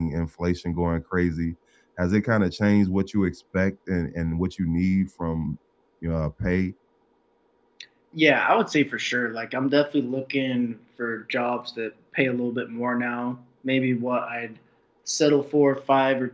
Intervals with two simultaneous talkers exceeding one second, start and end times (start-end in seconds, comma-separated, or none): none